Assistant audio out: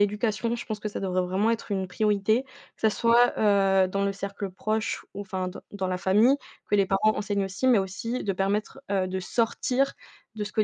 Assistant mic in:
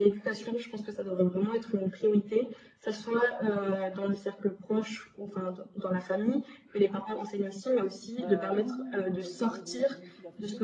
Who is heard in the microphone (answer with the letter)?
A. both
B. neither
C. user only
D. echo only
A